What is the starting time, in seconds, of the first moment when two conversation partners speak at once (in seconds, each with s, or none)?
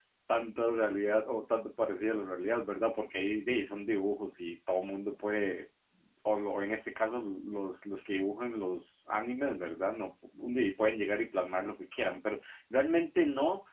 none